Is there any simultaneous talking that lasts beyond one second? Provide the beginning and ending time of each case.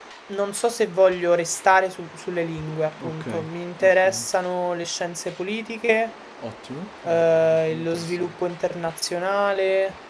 7.0-8.3

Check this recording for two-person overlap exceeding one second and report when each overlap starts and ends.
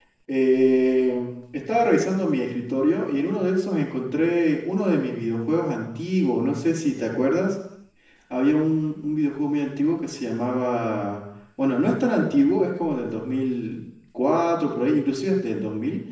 none

